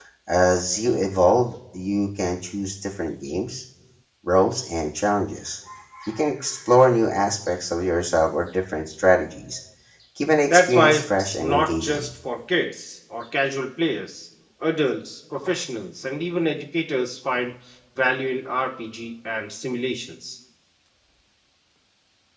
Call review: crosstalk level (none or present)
present